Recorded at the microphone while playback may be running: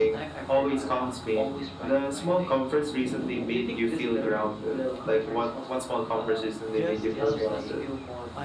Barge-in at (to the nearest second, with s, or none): 7 s